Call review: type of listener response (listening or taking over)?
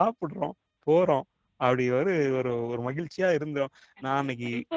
taking over